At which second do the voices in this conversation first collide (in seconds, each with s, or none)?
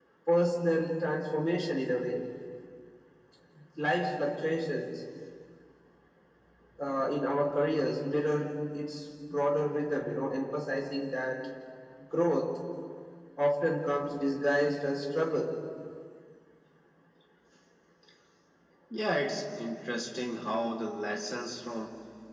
none